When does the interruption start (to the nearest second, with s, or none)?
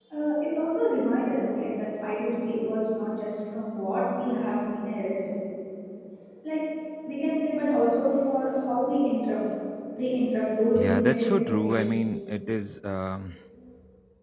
11 s